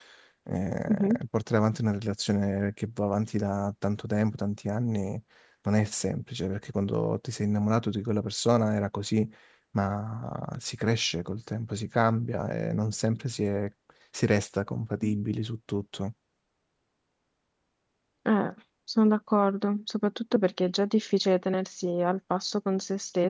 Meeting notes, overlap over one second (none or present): none